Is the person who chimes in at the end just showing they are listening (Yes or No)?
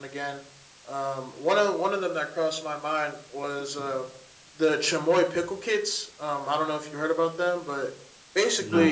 Yes